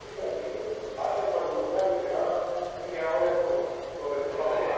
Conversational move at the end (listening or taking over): taking over